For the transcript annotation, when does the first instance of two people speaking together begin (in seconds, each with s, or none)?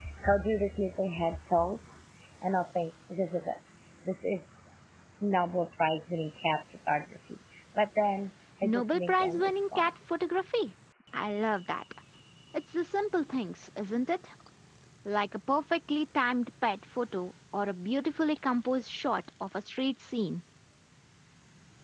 8.6 s